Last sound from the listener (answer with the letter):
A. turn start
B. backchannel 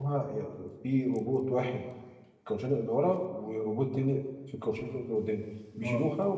B